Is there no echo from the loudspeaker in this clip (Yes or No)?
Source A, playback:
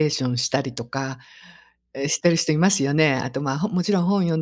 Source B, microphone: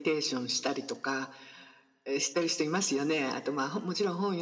No